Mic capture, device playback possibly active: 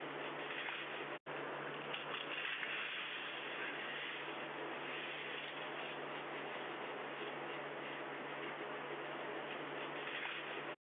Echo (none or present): none